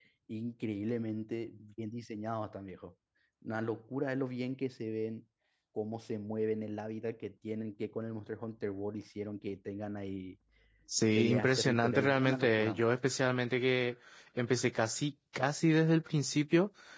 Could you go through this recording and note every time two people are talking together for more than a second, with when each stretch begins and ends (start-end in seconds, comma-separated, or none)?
11.2-12.8